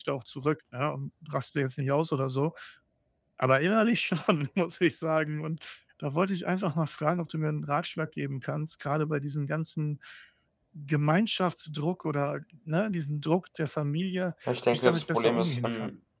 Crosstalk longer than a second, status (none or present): present